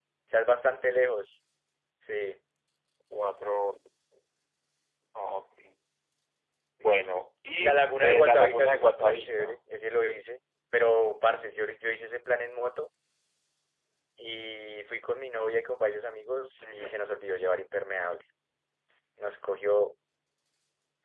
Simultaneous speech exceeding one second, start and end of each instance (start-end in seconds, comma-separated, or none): 7.6-9.6